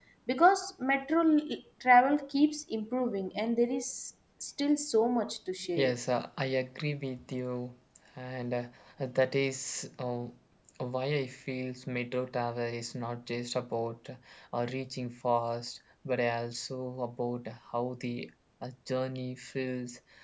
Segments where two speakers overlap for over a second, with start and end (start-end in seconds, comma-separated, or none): none